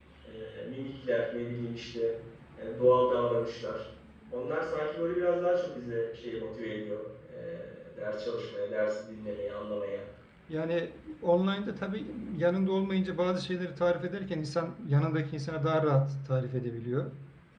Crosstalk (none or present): none